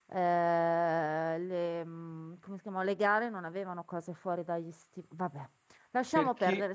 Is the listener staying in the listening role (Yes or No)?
No